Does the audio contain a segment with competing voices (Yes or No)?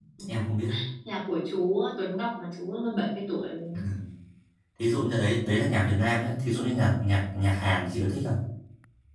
No